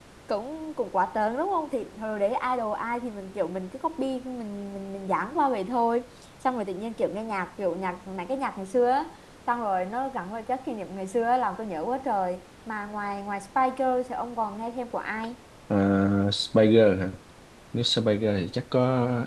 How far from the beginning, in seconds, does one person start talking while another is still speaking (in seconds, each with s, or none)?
none